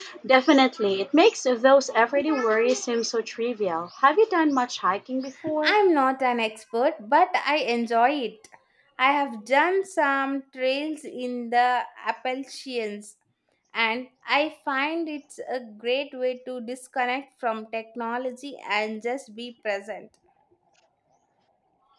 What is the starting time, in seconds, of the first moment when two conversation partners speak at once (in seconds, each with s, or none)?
none